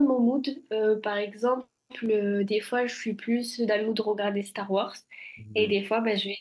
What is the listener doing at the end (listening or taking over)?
listening